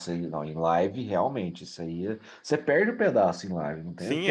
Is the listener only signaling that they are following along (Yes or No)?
No